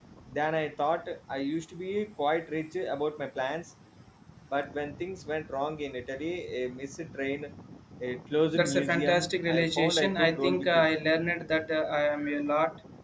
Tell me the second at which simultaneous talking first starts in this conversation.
8.6 s

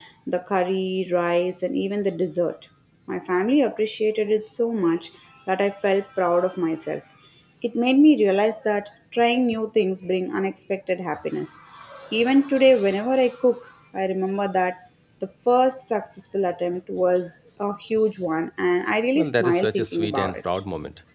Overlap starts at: 19.2 s

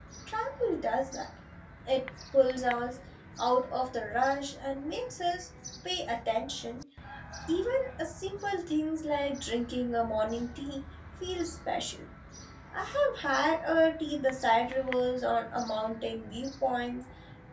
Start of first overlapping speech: none

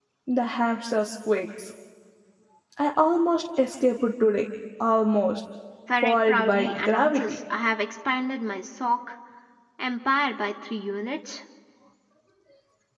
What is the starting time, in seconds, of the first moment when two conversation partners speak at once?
6.0 s

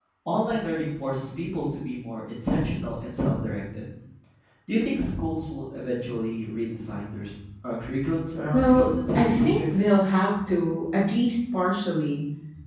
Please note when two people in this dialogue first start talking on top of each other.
8.5 s

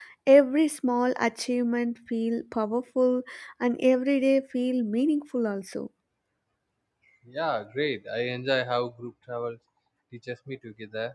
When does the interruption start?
none

